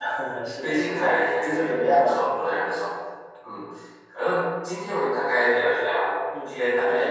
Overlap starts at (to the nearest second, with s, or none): 1 s